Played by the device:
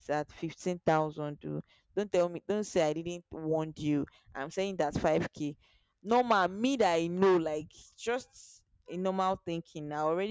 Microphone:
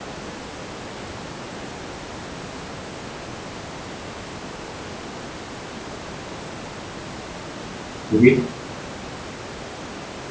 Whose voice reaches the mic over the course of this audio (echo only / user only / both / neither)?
user only